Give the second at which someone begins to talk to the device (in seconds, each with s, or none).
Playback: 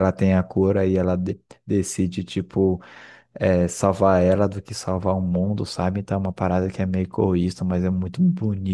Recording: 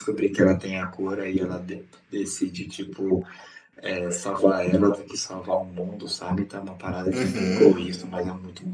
7.1 s